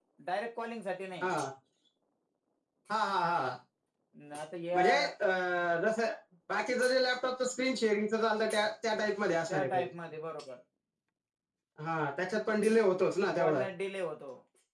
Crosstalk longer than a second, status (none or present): none